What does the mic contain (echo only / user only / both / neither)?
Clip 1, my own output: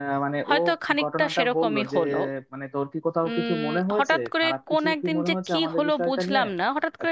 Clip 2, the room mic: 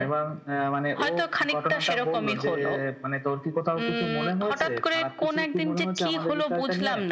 echo only